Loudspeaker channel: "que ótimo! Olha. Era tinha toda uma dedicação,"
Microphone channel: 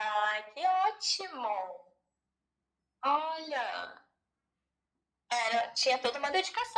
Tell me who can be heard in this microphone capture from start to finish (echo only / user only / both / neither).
echo only